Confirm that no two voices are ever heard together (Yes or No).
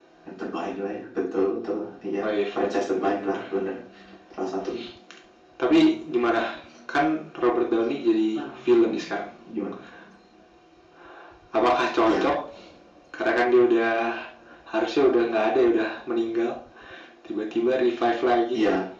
No